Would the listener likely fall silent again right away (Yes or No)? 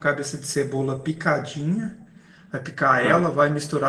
Yes